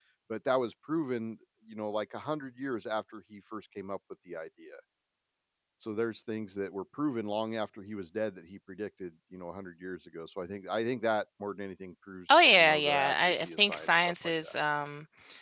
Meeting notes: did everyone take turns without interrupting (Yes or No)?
No